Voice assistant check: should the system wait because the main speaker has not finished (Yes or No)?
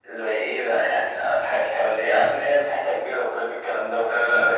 No